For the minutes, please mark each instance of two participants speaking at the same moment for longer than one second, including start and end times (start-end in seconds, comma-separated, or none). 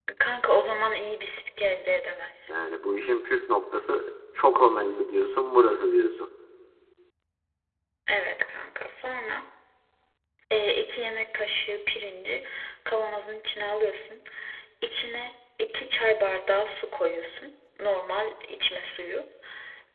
none